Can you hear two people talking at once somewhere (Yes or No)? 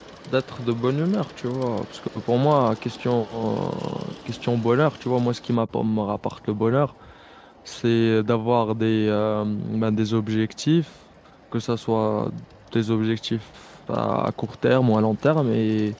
No